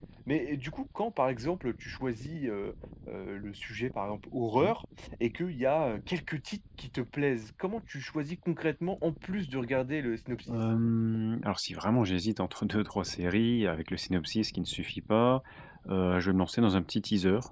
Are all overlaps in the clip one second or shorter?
Yes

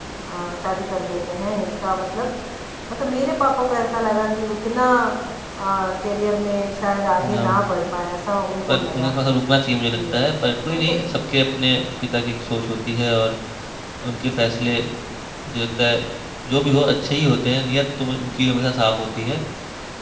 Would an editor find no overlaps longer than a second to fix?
Yes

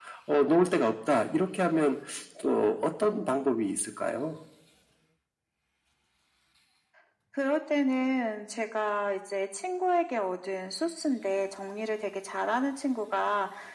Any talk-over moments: No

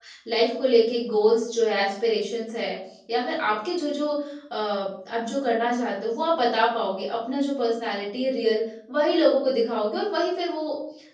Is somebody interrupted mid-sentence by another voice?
No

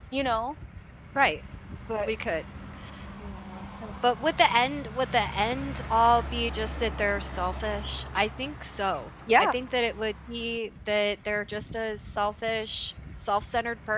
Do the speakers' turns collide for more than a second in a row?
No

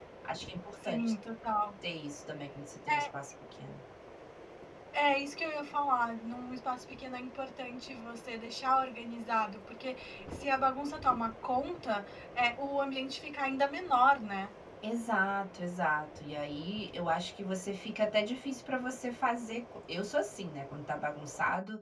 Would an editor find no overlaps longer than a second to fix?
Yes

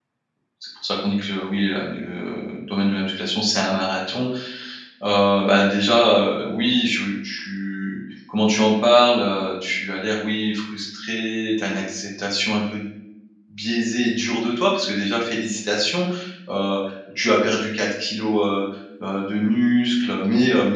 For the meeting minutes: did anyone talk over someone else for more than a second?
No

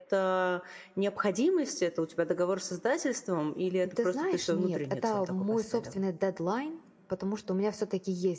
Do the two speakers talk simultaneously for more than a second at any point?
Yes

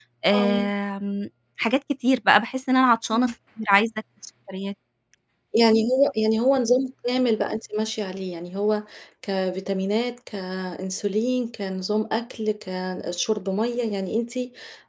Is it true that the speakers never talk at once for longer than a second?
Yes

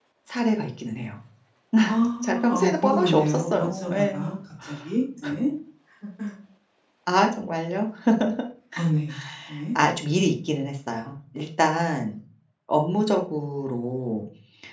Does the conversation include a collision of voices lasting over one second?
Yes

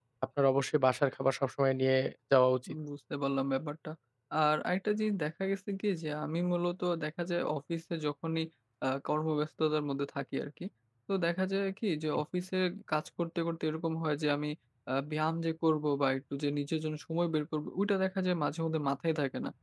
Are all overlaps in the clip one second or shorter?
Yes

